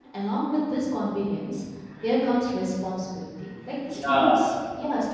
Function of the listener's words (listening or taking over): listening